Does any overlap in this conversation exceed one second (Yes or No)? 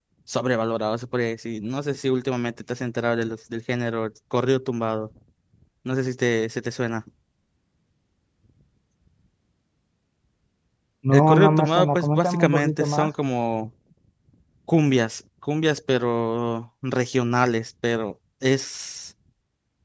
Yes